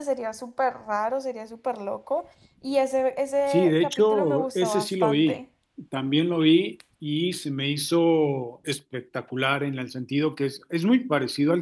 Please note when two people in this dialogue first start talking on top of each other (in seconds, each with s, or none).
3.5 s